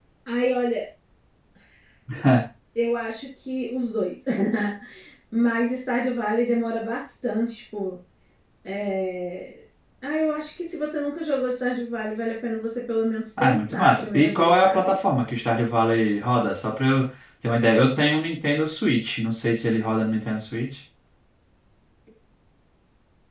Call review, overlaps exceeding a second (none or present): present